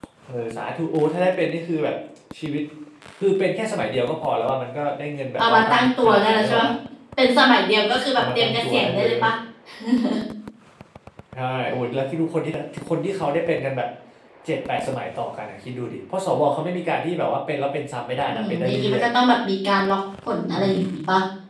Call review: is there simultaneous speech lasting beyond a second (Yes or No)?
Yes